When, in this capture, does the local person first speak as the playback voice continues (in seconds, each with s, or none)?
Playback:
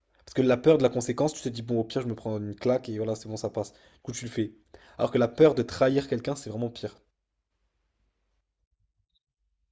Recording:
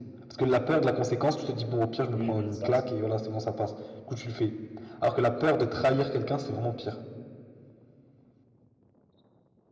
2.1 s